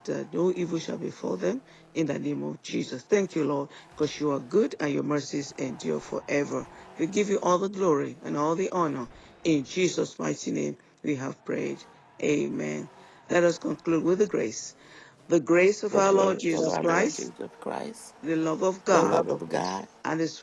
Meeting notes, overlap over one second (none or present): present